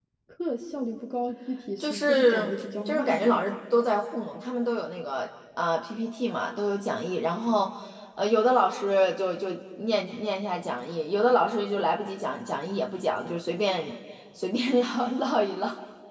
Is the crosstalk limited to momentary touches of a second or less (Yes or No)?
No